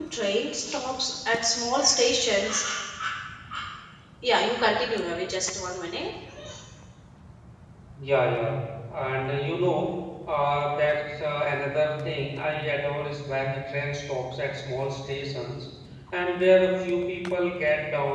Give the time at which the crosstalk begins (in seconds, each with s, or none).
none